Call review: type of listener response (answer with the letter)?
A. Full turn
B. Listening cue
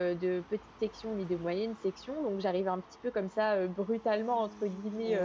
B